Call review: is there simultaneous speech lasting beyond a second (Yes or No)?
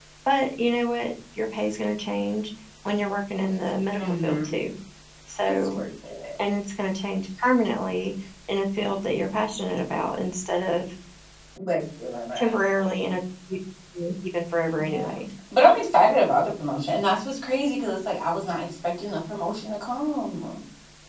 No